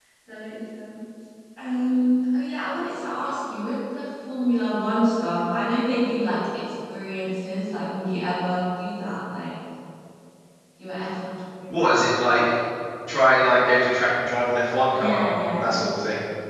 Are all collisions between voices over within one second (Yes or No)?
Yes